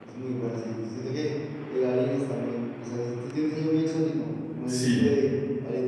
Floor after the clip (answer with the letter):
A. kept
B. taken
A